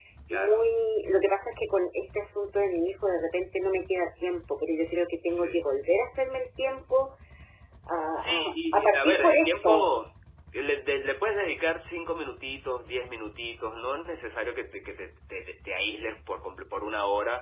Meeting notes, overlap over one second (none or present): present